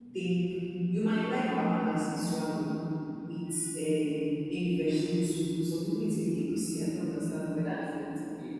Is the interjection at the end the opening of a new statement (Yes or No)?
Yes